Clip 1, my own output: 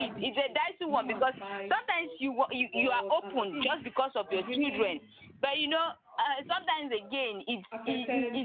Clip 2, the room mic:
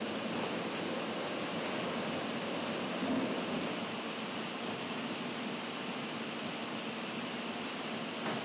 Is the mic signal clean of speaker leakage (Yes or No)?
Yes